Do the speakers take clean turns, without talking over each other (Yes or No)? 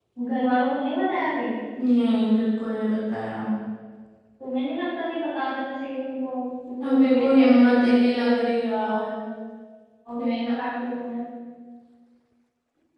No